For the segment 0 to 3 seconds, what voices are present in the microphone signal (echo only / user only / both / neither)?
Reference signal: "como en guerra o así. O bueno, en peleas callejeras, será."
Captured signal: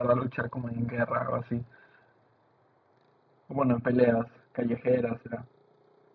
echo only